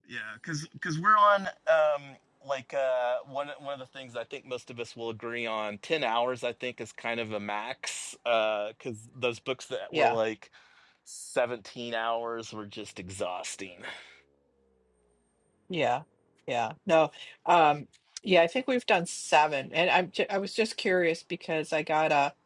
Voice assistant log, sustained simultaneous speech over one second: none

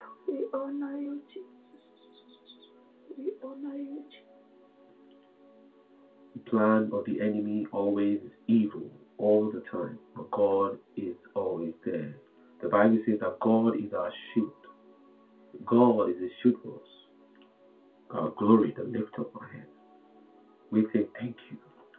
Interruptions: none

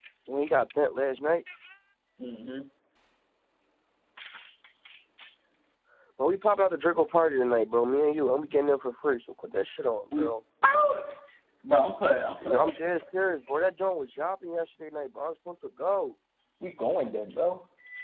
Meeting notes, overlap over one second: none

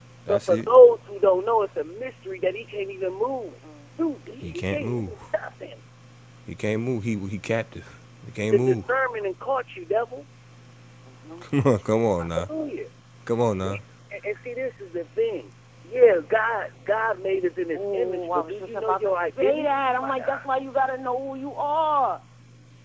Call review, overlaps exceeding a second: present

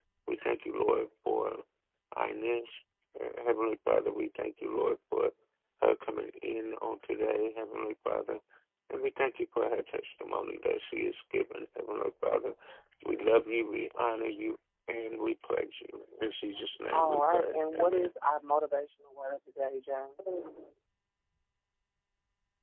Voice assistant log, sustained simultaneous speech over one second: present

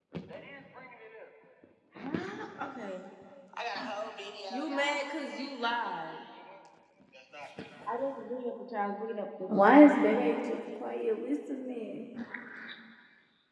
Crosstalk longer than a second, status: none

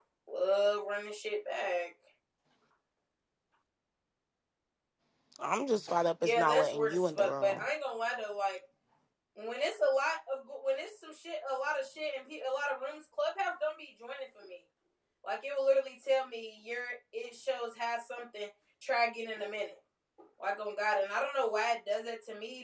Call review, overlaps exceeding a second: present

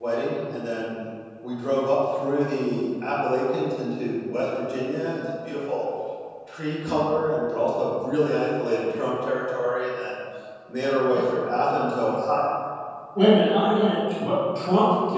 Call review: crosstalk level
none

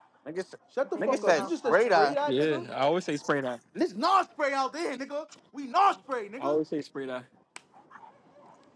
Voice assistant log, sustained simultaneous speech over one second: present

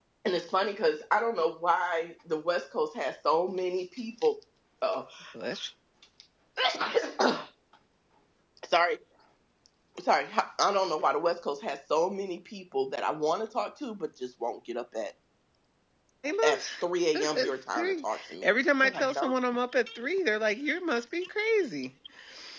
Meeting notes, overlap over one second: present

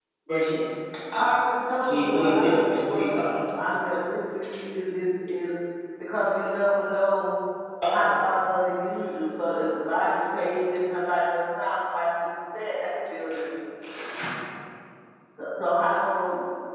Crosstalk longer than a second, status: present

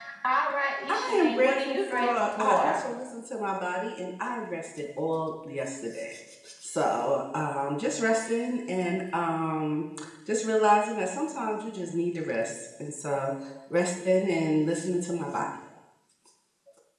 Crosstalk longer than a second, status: present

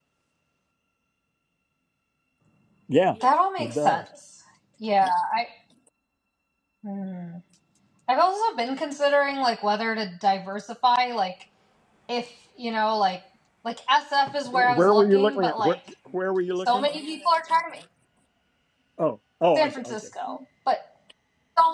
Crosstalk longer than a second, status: present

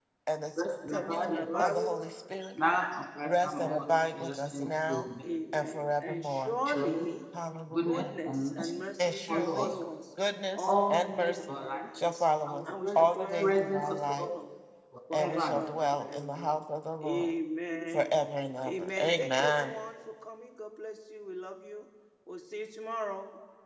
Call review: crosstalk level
present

